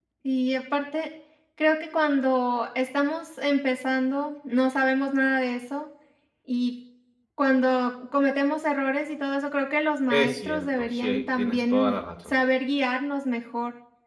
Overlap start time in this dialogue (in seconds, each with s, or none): 10.1 s